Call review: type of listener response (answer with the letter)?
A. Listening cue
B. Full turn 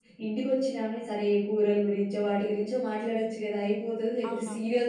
A